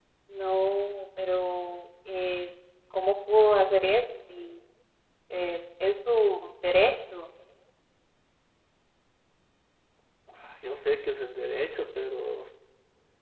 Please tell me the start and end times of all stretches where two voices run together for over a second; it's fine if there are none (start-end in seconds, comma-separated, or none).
none